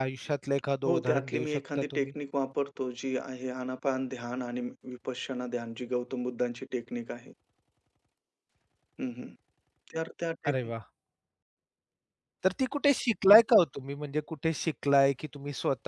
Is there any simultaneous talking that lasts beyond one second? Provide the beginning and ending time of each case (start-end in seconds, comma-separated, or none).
0.9-2.1